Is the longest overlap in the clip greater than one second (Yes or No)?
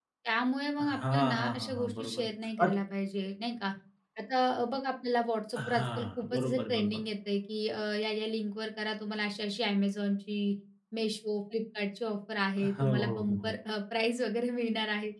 Yes